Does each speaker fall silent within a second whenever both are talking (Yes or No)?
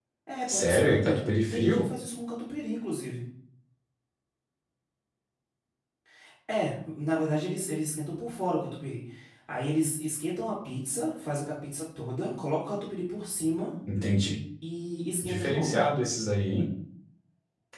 No